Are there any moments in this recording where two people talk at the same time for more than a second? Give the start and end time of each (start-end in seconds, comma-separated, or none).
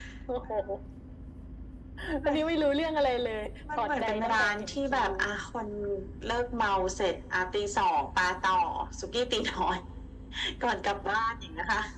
3.8-5.1